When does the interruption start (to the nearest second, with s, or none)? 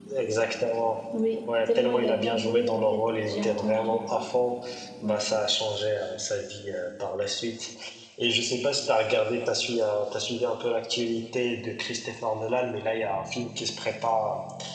2 s